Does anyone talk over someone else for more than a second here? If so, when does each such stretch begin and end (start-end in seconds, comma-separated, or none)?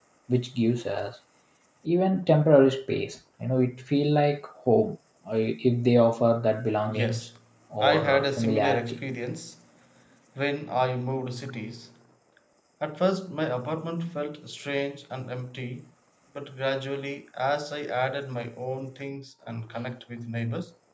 7.8-9.0